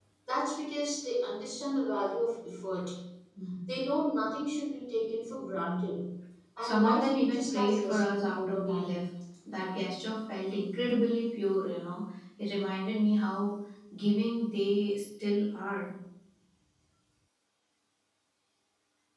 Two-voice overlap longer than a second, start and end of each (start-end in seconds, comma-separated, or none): 6.6-9.0